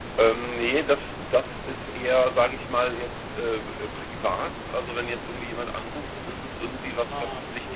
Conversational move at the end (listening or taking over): listening